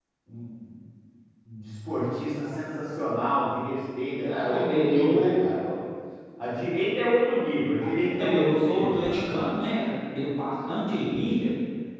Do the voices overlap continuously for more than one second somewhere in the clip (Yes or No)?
Yes